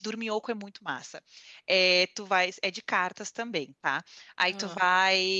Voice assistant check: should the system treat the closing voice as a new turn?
No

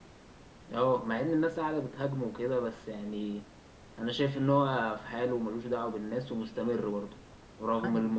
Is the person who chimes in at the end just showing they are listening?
Yes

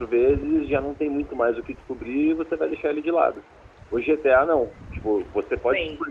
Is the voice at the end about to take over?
No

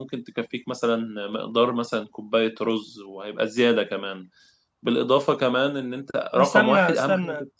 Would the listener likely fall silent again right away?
No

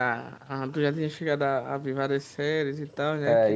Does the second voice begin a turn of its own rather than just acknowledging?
Yes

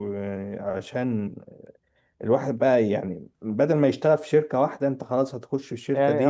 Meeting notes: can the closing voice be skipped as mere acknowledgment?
No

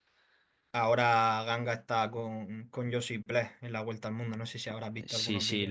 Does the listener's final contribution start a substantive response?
Yes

